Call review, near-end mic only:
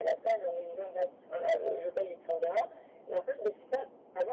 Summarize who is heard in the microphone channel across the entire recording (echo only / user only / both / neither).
echo only